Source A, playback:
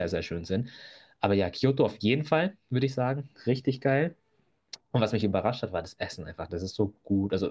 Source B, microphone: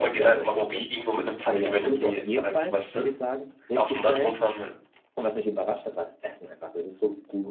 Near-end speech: present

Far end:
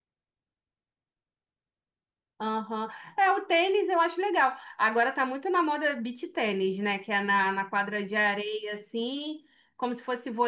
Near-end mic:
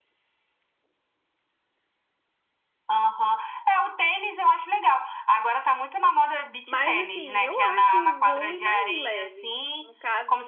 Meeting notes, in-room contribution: present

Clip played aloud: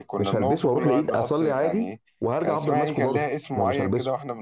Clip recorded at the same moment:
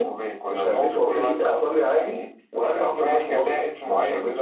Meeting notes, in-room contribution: none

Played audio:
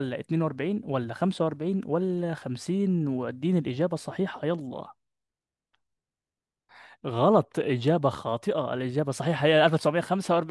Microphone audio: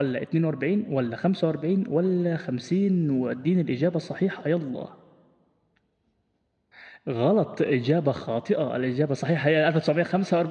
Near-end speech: none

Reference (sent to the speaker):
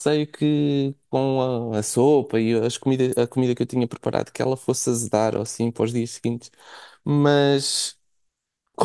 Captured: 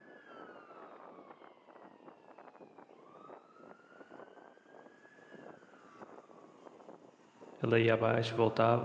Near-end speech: present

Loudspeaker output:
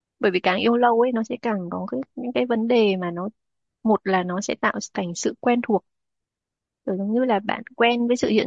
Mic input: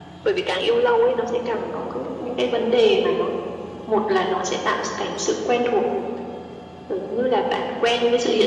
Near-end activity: none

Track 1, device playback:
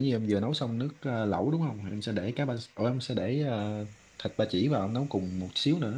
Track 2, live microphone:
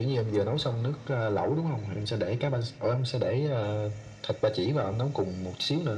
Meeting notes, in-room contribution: none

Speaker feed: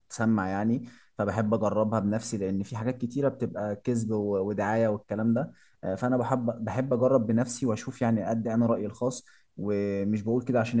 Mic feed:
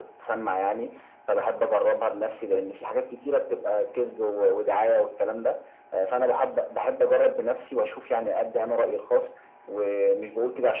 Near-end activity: none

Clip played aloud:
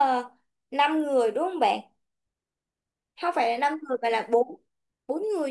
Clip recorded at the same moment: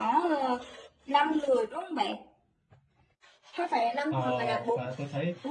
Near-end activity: present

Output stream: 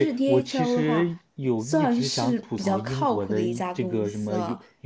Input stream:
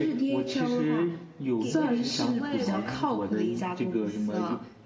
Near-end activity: present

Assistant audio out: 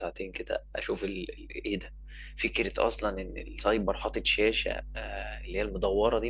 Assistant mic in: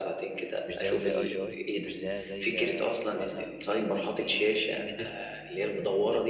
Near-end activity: present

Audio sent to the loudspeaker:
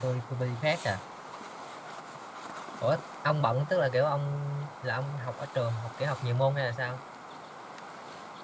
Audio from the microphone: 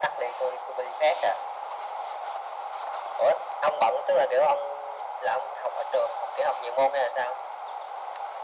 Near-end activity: none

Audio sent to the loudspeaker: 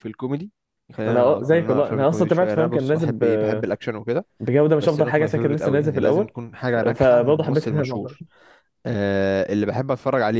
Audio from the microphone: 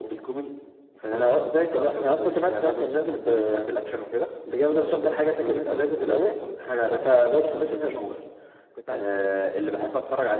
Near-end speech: present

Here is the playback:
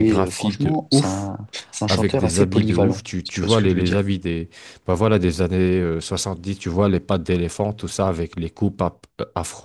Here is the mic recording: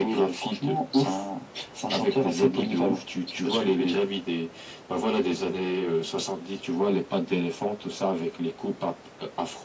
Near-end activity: none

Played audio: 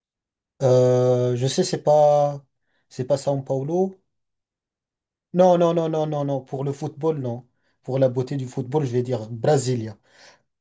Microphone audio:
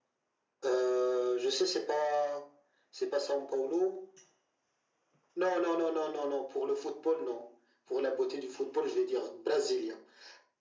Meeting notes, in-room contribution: none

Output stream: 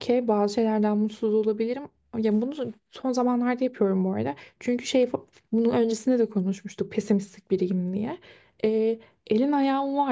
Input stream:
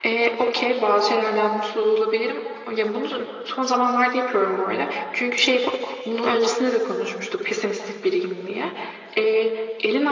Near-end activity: none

